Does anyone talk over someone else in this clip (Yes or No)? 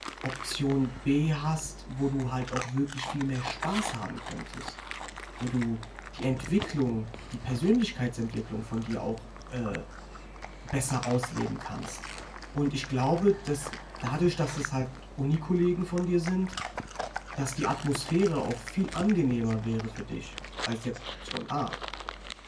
No